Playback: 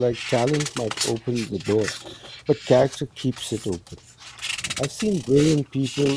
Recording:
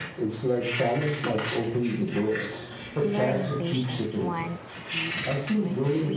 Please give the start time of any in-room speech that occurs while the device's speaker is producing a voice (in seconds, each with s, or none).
3.0 s